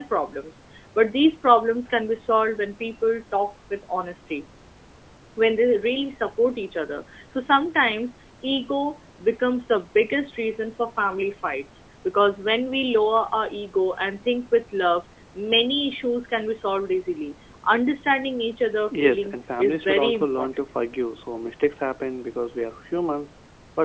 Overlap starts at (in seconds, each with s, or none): 18.9 s